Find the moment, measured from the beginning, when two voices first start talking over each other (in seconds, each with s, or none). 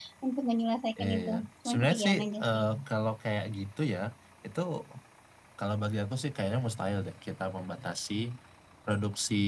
1.0 s